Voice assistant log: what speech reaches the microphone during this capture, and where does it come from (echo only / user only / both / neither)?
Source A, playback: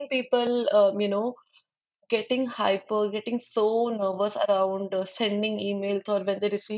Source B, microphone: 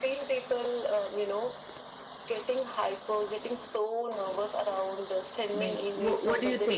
both